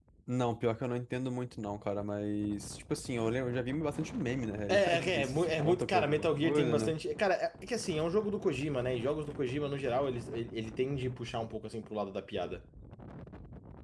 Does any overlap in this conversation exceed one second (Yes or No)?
Yes